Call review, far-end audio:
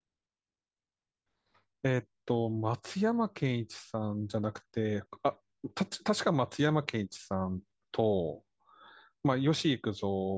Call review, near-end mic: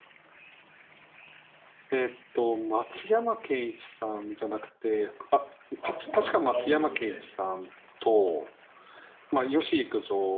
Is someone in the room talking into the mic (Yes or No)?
Yes